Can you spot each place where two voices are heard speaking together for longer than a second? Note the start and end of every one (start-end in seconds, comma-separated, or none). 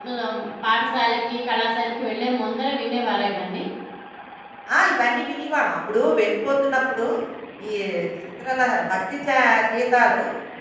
none